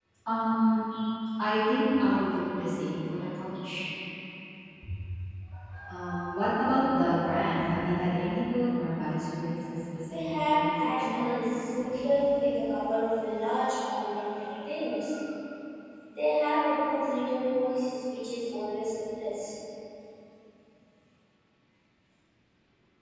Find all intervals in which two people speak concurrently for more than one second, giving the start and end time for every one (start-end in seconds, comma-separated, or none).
10.1-11.8